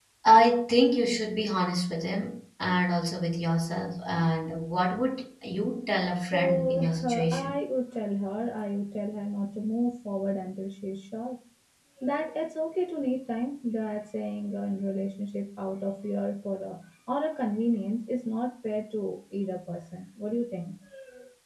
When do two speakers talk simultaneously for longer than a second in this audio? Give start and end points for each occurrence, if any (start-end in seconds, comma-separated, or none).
6.3-7.6